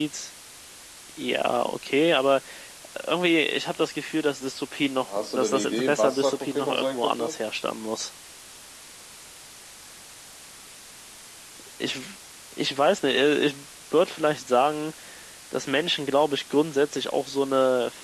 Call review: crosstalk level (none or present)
present